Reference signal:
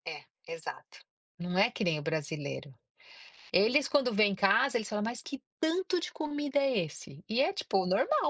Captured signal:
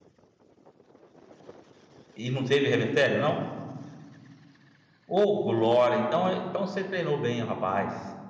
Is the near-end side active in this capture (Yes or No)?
Yes